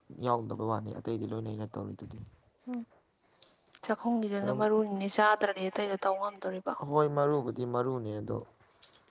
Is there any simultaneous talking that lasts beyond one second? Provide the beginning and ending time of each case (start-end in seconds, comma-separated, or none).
none